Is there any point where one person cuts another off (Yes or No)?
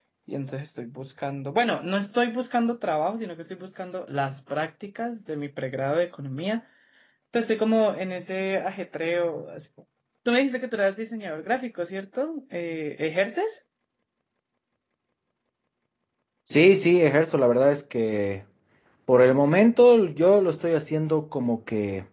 No